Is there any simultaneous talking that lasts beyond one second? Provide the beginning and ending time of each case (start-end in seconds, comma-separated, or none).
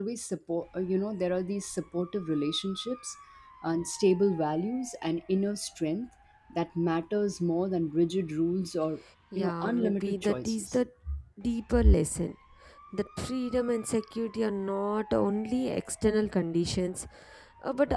9.4-10.8